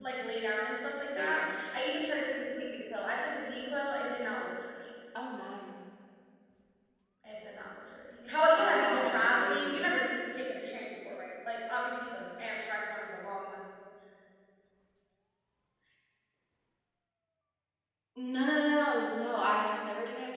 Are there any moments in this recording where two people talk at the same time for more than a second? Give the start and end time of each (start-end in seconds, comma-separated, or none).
8.6-9.9